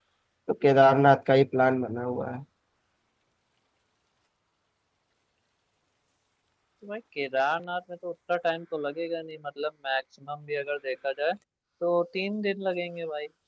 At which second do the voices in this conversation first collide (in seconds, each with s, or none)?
none